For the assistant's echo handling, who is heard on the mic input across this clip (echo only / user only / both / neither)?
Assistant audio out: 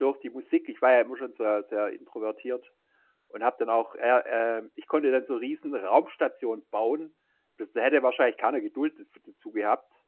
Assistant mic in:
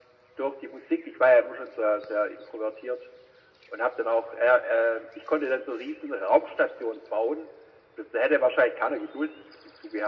echo only